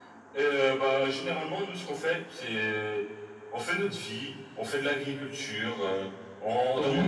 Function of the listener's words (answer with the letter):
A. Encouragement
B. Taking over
A